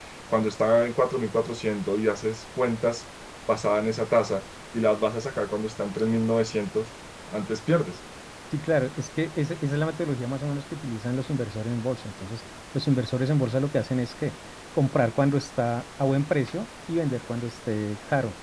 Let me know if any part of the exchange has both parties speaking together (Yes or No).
No